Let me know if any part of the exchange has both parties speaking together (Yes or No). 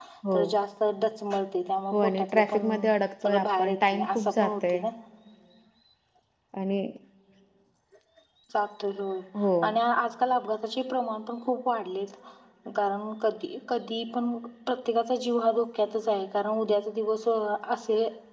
Yes